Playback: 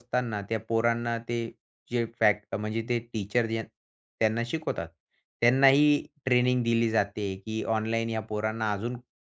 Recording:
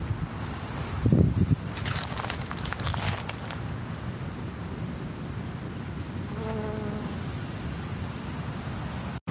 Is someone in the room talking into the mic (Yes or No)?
No